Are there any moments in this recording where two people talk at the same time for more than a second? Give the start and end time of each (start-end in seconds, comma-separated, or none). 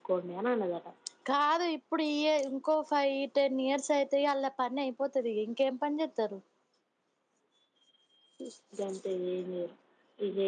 none